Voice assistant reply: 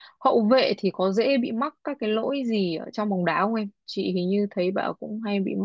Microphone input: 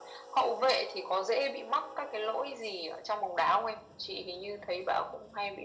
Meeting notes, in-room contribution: none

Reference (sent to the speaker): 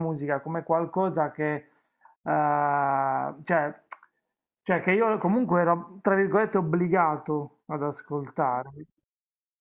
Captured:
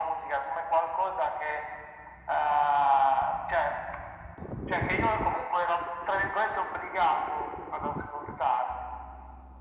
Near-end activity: none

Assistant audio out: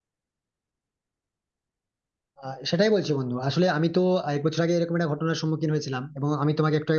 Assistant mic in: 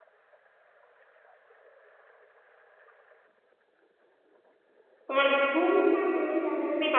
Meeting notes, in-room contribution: present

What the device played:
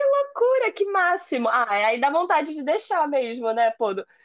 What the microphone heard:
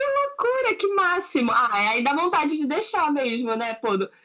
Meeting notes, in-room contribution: none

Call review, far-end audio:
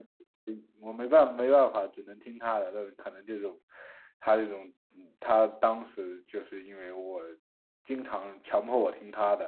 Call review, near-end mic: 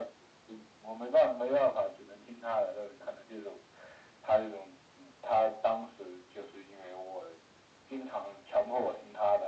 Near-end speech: none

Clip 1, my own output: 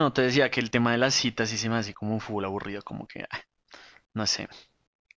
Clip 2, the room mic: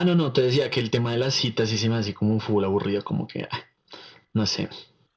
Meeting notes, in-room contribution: none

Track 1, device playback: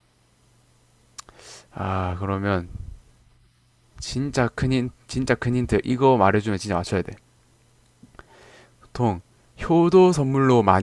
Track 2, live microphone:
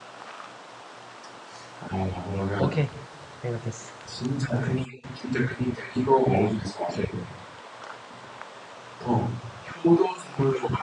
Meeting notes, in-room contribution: present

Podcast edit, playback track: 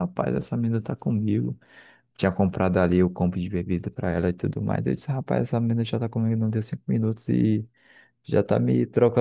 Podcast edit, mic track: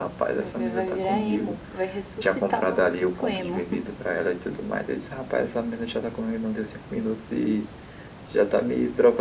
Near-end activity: present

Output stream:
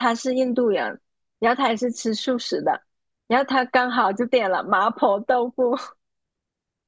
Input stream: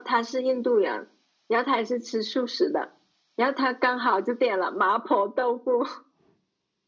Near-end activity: none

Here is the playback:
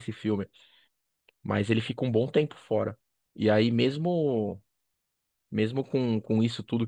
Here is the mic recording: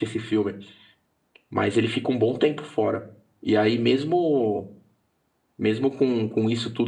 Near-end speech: none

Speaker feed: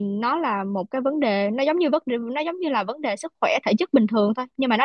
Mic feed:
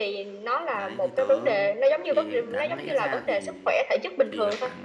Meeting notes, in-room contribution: present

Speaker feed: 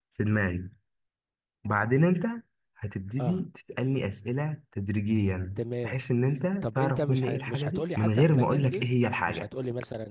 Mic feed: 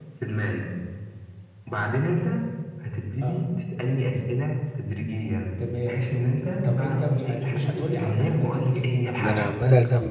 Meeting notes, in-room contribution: present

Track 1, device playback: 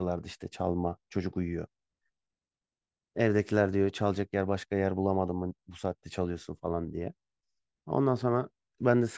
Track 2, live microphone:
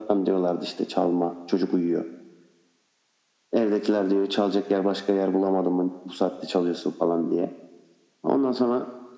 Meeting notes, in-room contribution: none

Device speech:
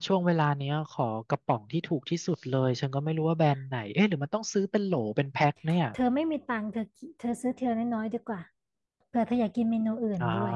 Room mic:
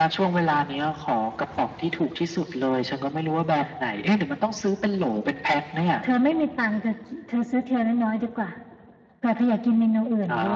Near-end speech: none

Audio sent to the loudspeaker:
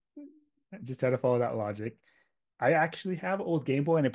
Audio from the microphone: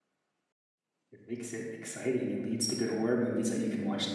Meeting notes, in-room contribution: present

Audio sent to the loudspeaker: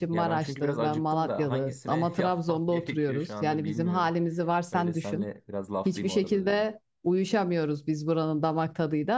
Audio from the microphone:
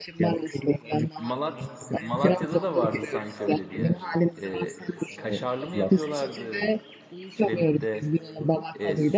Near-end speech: present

